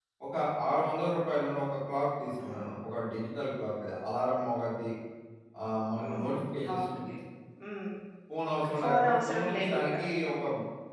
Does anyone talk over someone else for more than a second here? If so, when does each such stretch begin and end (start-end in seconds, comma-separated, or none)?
8.6-10.0